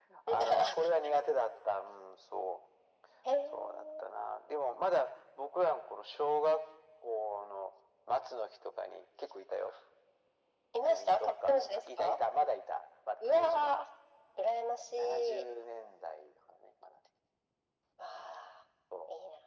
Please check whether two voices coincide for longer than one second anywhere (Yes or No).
Yes